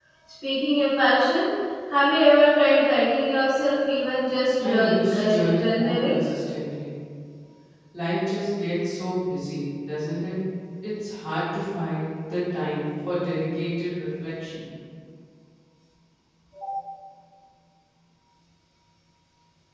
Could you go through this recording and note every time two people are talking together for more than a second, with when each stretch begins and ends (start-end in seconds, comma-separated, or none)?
4.6-6.2